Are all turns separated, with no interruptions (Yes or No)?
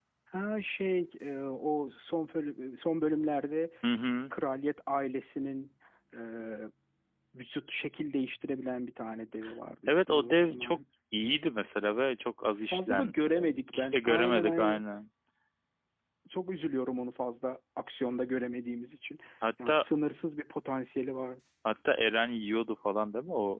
No